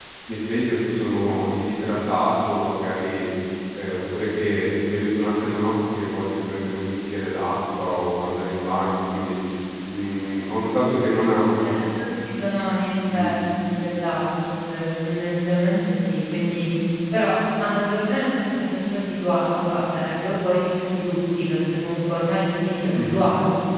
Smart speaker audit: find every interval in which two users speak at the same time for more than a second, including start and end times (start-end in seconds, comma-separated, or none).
none